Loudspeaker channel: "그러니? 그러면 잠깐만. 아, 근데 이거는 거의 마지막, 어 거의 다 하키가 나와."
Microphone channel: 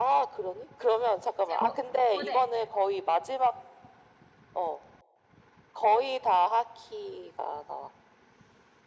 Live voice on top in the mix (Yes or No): No